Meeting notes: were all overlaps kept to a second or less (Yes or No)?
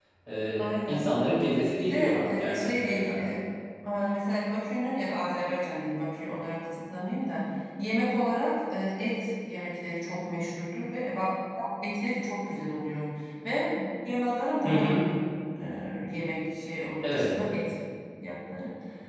No